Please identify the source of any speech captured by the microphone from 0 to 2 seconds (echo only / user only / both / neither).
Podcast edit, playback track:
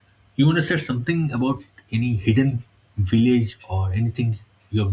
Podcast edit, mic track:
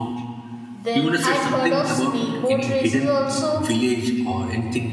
both